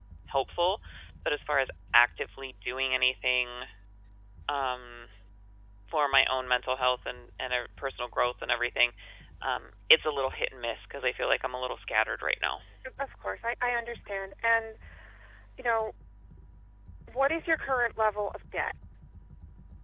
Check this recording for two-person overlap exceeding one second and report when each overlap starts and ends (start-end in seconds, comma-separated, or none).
none